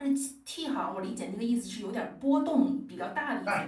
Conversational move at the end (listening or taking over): taking over